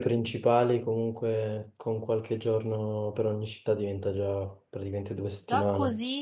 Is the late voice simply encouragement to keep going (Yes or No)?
No